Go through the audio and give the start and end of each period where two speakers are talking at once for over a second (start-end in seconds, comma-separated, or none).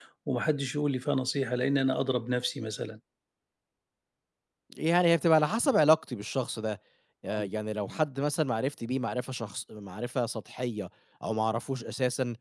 none